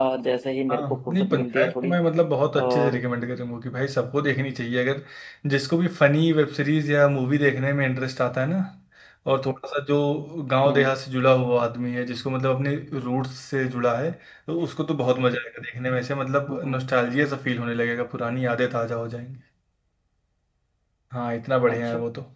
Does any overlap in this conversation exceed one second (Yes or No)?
Yes